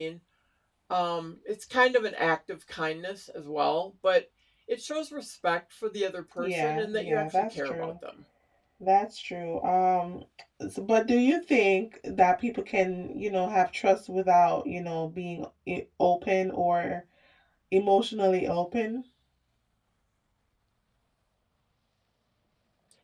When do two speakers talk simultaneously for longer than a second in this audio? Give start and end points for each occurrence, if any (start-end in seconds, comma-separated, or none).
6.4-7.9